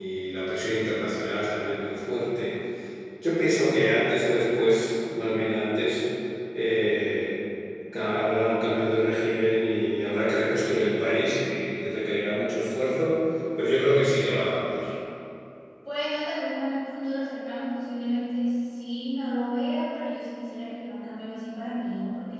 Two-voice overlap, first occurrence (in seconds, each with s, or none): none